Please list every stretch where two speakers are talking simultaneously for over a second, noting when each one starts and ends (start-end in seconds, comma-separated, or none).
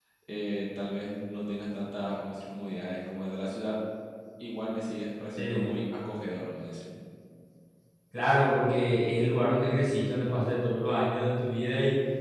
none